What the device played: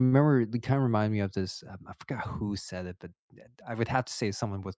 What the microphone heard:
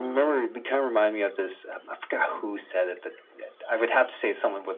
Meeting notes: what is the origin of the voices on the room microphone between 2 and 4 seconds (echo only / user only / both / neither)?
echo only